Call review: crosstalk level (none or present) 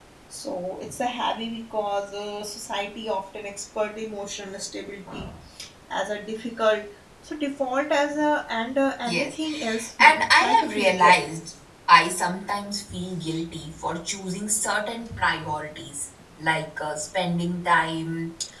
present